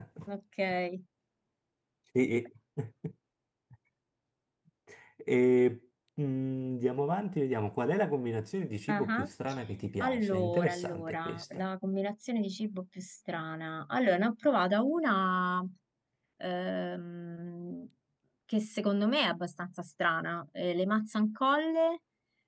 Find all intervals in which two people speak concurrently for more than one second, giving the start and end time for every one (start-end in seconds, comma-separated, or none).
10.0-11.6